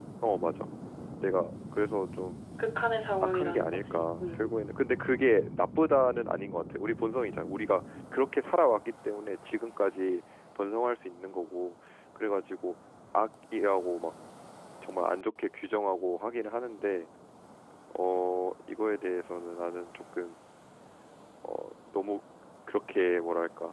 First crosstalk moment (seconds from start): 3.2 s

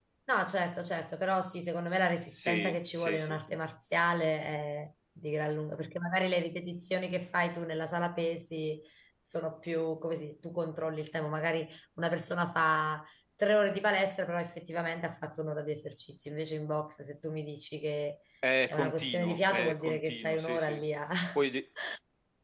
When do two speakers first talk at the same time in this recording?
2.3 s

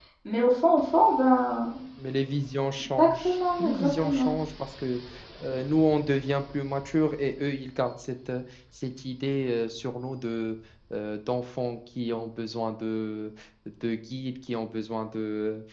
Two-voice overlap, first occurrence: 3.0 s

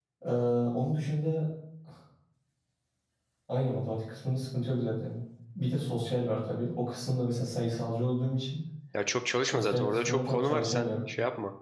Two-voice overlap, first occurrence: 9.5 s

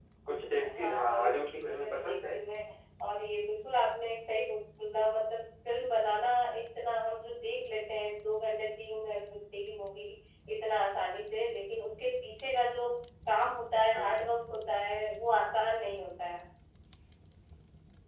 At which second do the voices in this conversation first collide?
0.7 s

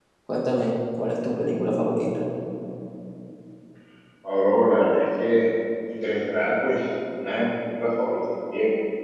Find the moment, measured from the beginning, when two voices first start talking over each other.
none

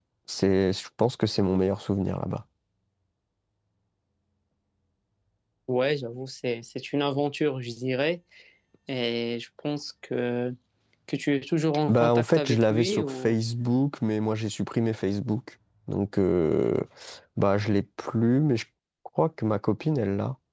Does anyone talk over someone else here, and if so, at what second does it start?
11.9 s

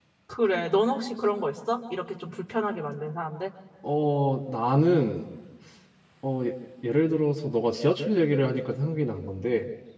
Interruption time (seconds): none

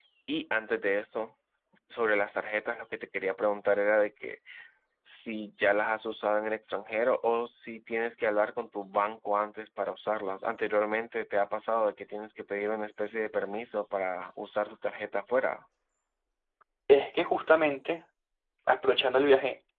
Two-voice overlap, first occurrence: none

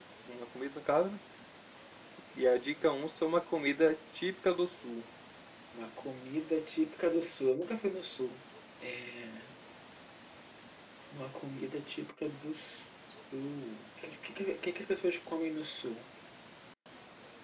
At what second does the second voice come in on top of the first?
none

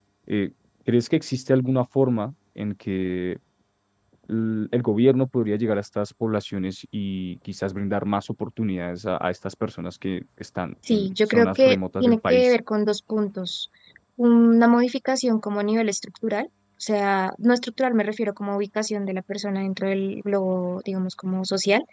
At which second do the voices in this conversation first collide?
10.9 s

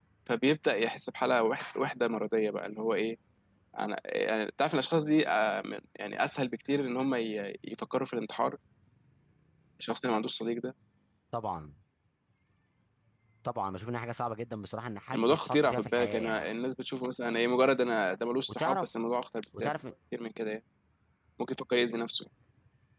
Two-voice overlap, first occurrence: 15.1 s

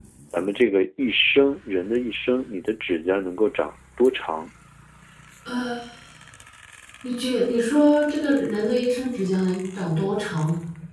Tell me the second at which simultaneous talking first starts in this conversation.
none

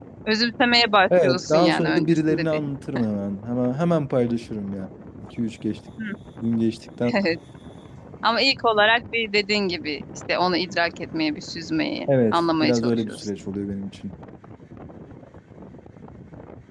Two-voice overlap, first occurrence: 1.2 s

